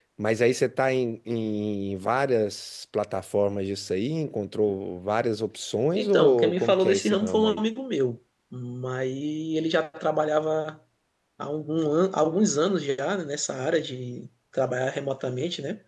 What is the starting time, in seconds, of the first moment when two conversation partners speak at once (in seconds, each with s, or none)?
5.9 s